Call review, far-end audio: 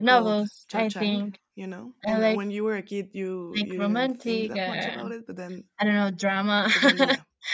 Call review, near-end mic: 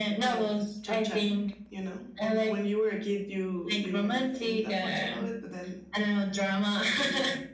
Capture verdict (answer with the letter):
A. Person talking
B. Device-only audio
B